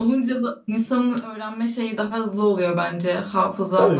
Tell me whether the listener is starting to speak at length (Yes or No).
Yes